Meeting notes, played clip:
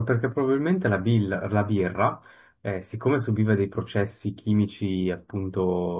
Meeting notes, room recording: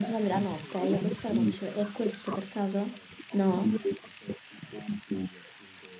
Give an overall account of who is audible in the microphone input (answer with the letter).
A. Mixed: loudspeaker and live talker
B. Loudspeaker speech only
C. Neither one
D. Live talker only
A